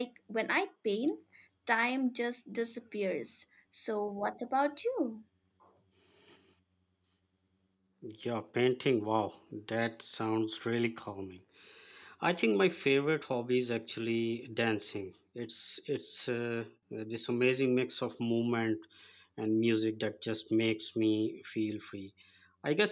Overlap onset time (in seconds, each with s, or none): none